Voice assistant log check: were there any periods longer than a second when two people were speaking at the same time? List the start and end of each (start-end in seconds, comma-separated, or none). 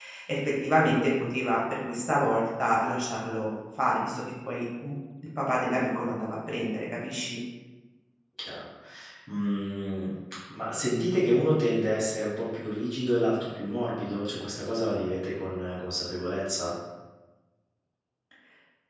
none